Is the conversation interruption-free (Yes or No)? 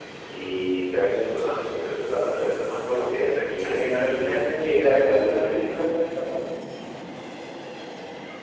No